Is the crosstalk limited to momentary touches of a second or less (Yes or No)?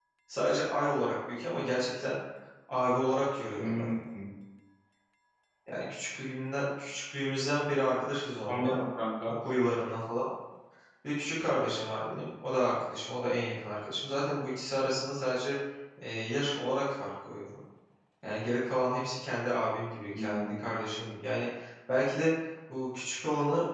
Yes